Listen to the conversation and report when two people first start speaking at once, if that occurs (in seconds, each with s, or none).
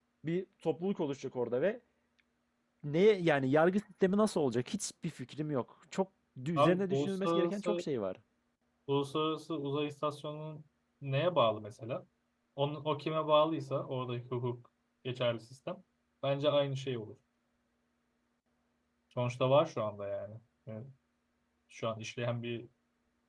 6.6 s